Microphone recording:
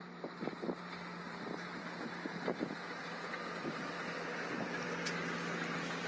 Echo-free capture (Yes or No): Yes